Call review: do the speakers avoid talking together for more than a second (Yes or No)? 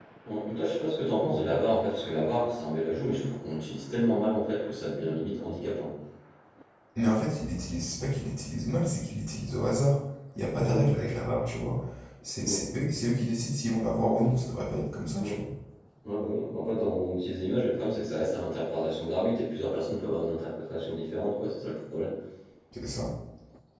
Yes